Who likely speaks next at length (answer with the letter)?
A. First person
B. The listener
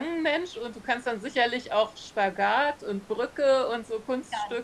B